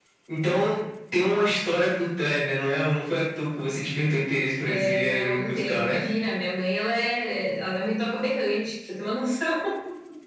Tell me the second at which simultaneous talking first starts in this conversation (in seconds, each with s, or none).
4.6 s